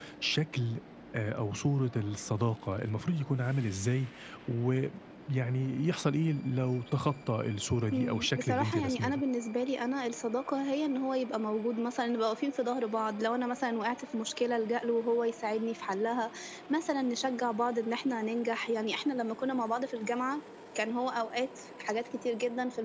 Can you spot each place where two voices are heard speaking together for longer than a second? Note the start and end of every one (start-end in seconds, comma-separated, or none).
7.9-9.2